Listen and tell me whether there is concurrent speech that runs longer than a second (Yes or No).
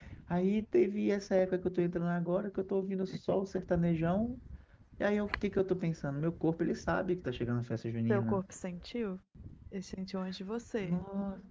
No